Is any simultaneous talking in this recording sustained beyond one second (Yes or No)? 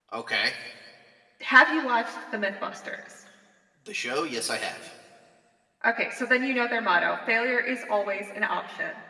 No